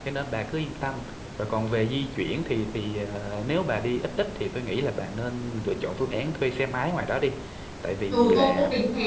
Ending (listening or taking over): taking over